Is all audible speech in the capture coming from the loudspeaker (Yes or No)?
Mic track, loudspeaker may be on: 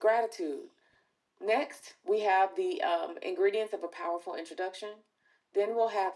Yes